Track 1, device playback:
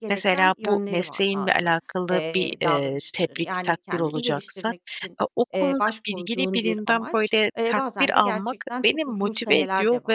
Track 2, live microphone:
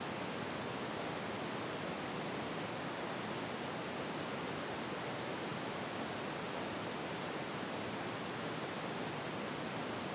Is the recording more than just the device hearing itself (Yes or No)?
No